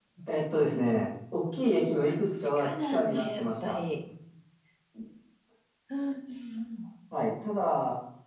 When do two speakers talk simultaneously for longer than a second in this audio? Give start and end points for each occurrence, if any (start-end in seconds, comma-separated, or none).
2.4-3.8